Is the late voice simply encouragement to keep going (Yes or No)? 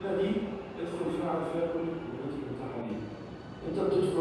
Yes